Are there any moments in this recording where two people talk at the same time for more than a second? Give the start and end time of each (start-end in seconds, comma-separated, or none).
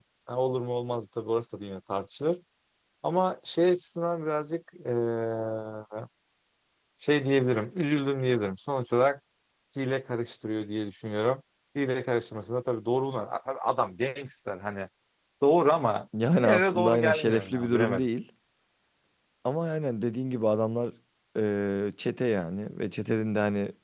16.4-18.1